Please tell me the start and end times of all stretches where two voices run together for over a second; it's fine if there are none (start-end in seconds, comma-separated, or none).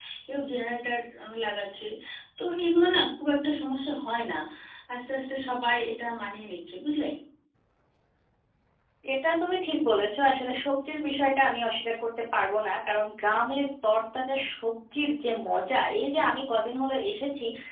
none